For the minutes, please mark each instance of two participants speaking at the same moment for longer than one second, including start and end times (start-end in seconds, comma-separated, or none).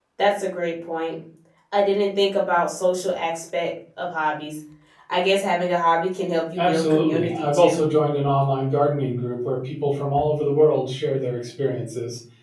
6.6-7.8